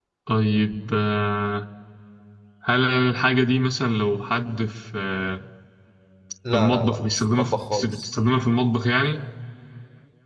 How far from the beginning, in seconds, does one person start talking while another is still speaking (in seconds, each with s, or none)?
6.5 s